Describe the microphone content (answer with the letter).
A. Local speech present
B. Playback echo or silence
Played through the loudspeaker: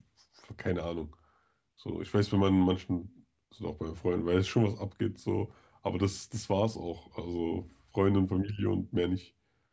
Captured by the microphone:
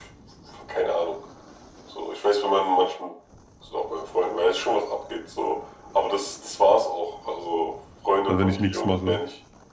A